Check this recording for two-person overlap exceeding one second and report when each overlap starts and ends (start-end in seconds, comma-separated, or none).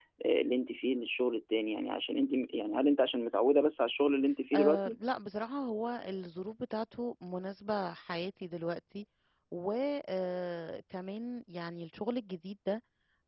none